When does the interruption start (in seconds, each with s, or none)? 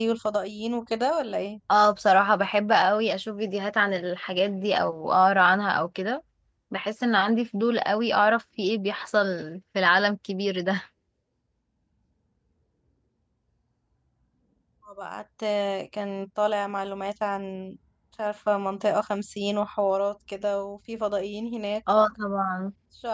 none